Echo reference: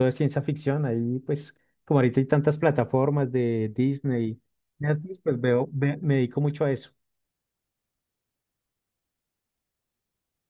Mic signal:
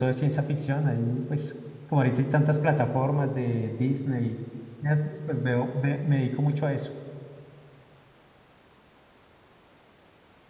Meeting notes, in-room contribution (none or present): none